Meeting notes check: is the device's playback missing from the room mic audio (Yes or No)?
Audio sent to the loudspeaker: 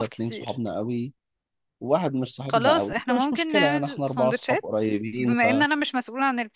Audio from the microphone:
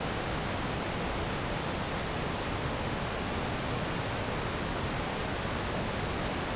Yes